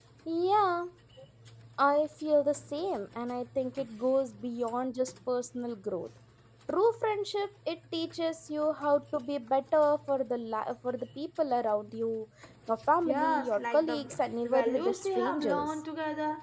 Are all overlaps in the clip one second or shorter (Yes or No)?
No